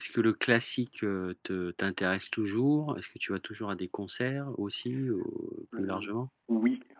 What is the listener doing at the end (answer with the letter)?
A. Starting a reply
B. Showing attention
A